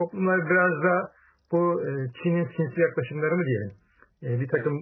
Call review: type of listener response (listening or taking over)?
listening